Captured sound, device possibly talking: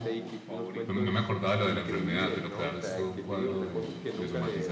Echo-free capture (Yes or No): No